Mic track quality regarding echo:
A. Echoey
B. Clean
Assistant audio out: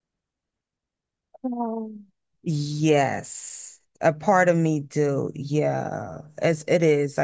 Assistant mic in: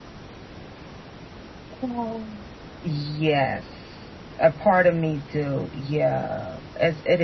A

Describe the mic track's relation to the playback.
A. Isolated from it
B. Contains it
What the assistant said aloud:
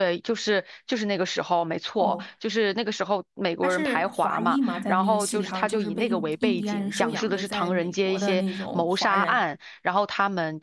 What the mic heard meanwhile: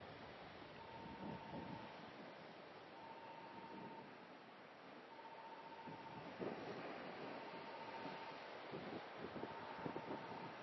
A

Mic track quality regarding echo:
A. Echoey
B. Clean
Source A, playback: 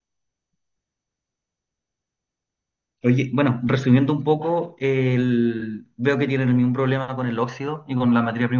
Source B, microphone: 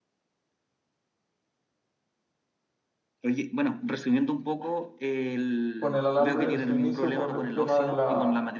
A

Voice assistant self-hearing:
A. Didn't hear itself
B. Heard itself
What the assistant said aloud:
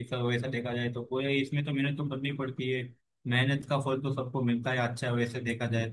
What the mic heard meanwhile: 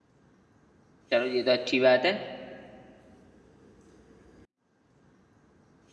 A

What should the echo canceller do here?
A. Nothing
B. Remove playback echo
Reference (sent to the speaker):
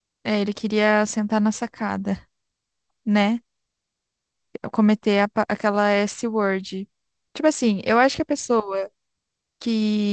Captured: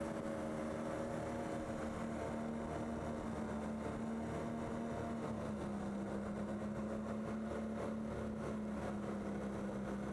A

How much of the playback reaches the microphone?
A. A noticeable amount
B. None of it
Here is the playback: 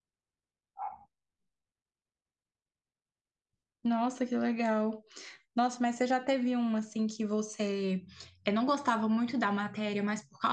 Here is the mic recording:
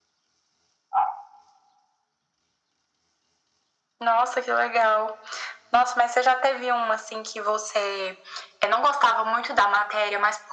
A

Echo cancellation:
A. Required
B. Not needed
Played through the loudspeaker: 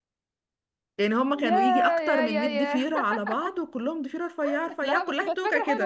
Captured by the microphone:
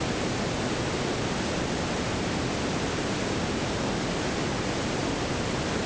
B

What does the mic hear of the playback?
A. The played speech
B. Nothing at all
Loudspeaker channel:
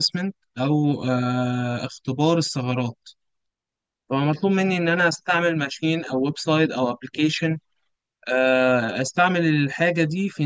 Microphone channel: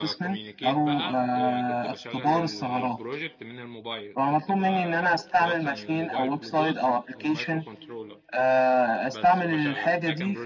A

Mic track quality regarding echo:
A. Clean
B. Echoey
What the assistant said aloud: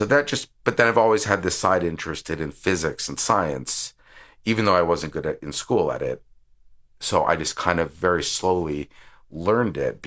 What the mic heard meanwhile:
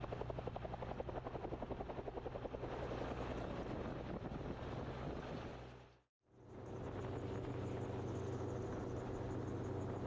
A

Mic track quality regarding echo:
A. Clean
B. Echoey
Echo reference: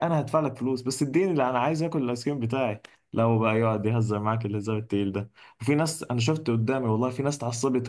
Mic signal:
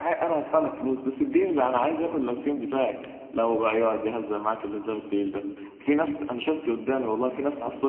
B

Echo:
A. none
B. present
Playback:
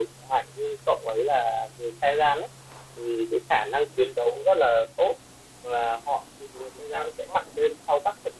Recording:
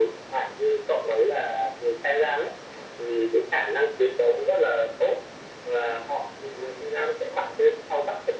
B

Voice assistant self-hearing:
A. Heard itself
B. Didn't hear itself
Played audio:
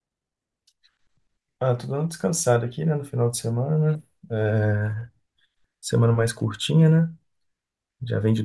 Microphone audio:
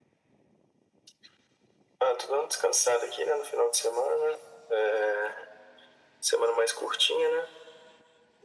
A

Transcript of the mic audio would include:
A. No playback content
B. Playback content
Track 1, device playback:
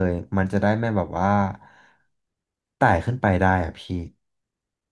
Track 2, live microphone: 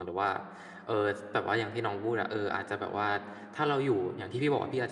A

